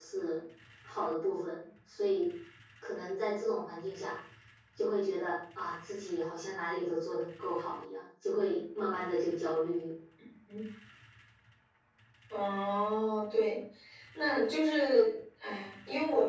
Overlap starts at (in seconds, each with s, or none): none